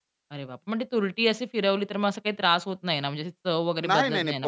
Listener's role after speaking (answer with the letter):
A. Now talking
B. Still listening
A